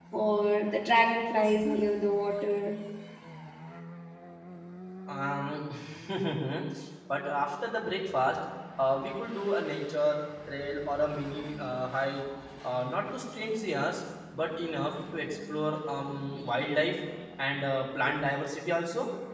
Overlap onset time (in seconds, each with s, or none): none